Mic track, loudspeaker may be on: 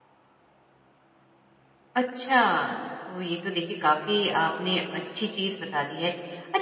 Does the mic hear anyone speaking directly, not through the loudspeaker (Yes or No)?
Yes